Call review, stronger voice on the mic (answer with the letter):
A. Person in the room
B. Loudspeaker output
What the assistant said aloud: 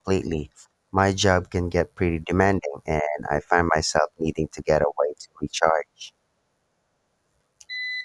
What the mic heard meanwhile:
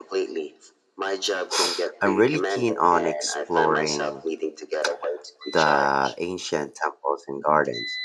A